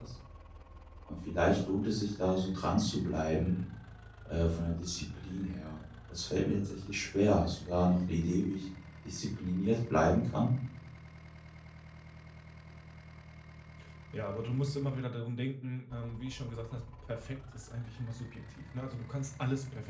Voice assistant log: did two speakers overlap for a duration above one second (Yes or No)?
No